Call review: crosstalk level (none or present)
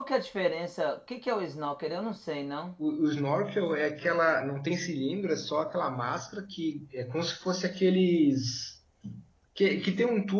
none